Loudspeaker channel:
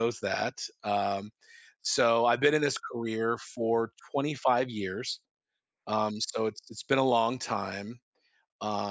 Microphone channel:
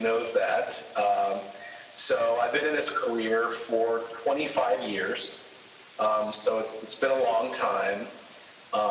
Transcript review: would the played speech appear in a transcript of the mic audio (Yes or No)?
Yes